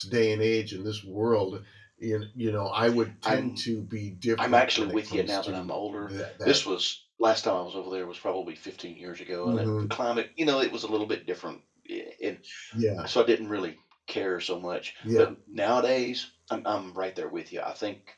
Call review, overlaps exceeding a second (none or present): present